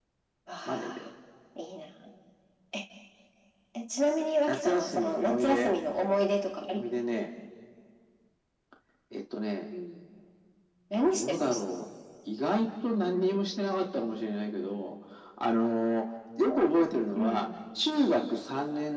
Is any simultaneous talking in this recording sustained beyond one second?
Yes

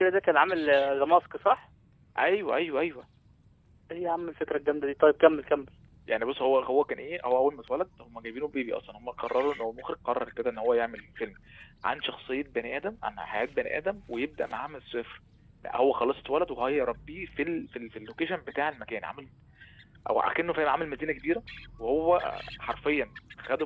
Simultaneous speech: No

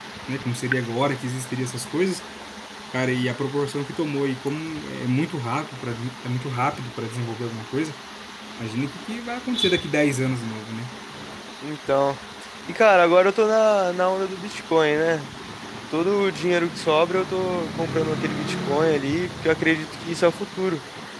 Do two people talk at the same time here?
No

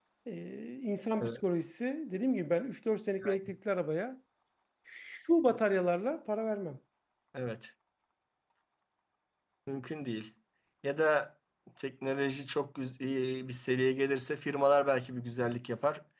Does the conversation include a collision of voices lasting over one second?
No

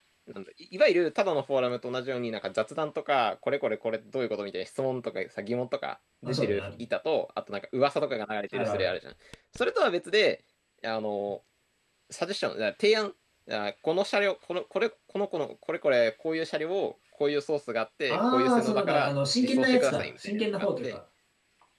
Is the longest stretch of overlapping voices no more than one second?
No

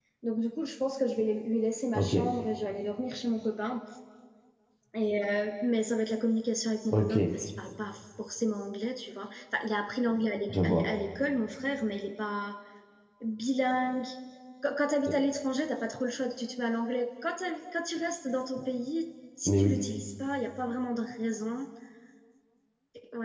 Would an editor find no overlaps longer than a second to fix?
Yes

